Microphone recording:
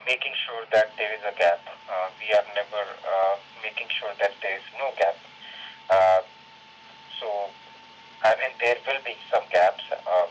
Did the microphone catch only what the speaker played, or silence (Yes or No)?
Yes